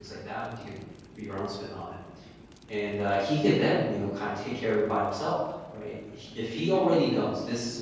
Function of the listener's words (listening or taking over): listening